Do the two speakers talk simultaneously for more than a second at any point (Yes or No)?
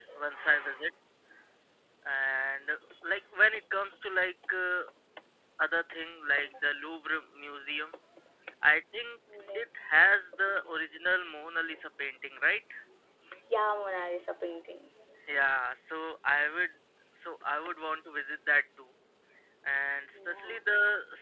No